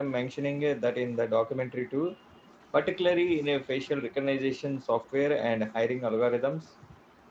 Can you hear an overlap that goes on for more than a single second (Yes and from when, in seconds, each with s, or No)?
No